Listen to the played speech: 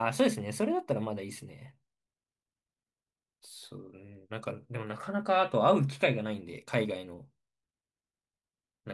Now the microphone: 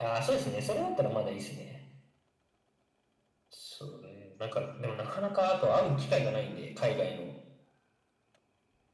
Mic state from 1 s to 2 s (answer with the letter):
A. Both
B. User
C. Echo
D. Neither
C